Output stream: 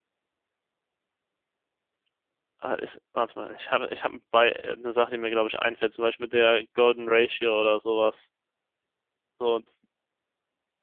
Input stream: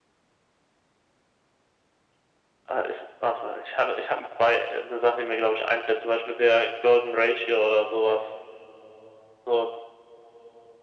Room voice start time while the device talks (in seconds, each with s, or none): none